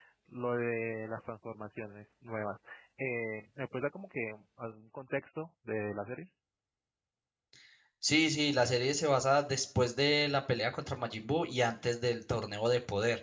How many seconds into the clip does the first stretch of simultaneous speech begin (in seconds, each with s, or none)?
none